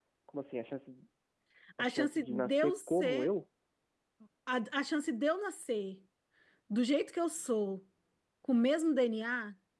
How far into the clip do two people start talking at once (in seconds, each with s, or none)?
1.8 s